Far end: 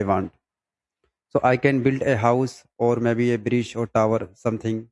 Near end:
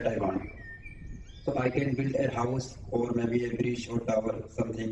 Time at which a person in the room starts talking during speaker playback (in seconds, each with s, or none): none